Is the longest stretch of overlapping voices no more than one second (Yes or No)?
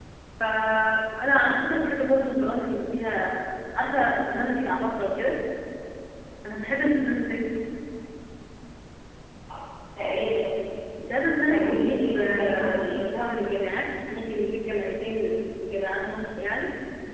No